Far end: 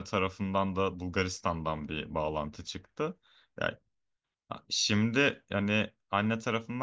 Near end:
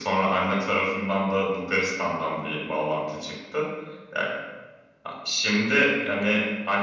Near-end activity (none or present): none